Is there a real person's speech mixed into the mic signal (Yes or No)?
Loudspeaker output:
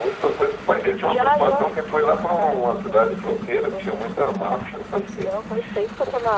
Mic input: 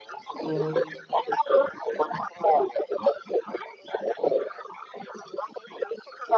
Yes